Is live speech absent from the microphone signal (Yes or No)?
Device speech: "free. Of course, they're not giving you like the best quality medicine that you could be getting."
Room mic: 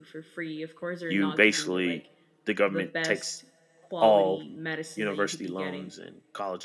No